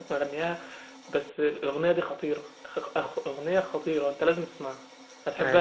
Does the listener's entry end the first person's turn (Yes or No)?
No